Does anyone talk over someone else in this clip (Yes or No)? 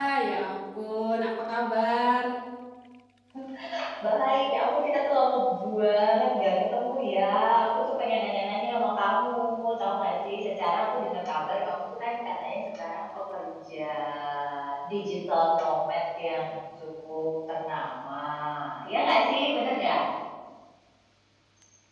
No